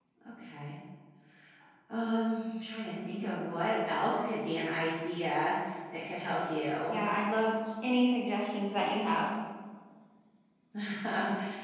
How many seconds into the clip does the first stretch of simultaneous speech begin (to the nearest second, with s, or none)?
none